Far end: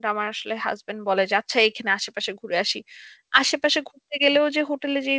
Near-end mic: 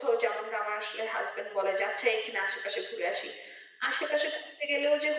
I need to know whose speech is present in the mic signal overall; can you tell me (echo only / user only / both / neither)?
echo only